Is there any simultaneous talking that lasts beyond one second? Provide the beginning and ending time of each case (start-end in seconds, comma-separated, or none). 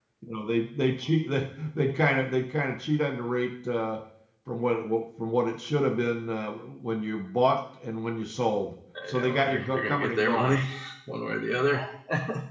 9.1-10.6